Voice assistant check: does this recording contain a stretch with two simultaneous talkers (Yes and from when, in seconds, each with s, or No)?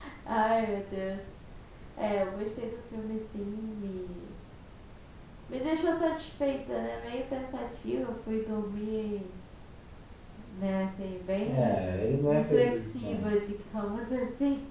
Yes, from 11.4 s